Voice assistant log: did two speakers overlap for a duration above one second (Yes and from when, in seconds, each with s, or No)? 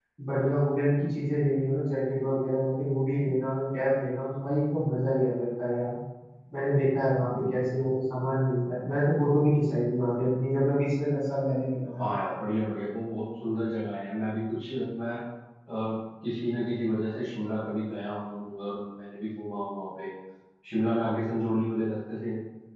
No